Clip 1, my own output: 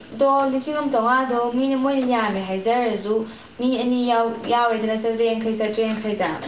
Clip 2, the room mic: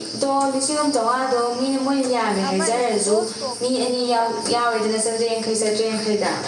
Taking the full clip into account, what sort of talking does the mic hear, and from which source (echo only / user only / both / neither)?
both